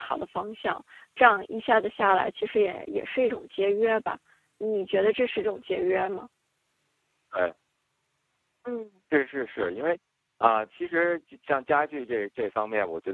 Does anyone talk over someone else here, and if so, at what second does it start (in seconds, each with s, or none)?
none